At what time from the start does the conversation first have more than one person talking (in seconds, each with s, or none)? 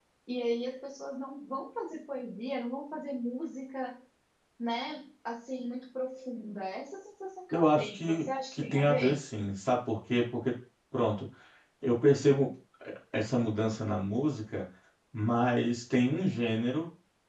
7.5 s